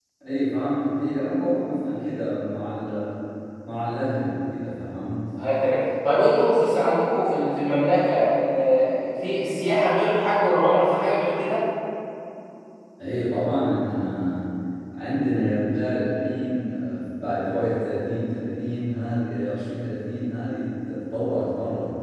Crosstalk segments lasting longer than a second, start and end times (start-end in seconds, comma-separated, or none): none